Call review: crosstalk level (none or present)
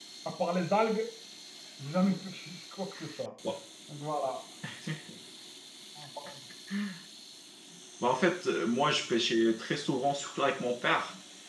none